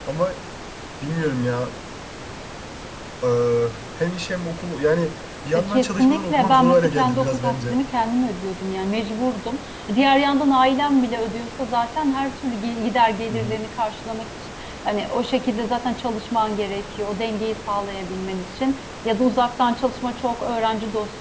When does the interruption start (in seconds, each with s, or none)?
5.7 s